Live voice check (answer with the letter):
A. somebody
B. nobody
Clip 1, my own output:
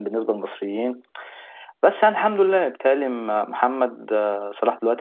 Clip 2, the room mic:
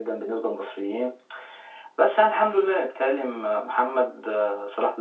B